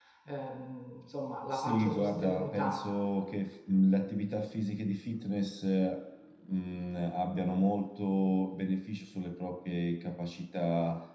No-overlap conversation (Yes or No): No